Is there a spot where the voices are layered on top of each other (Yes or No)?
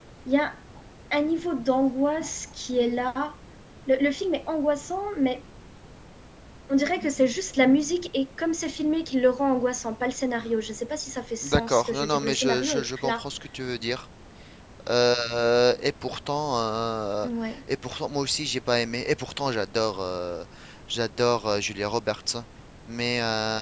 Yes